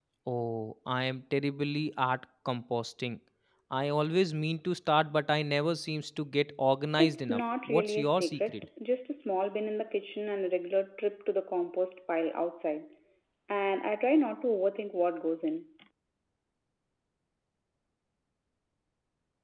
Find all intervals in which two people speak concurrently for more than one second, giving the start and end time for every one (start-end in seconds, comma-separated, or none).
7.0-8.7